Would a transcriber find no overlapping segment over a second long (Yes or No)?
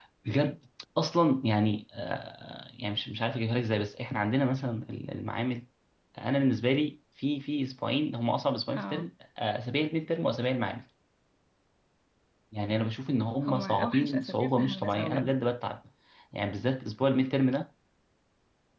No